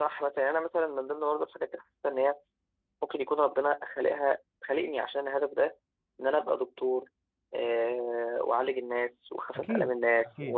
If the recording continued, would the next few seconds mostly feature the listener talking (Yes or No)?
No